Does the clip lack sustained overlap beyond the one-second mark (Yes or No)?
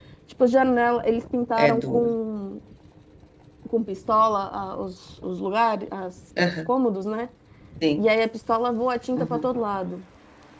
Yes